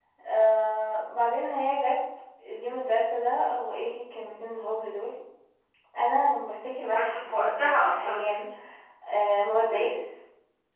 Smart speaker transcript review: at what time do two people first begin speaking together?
6.9 s

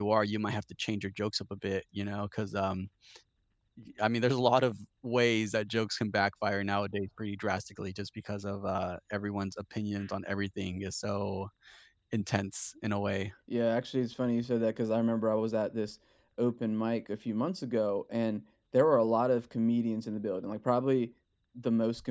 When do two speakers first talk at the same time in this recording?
none

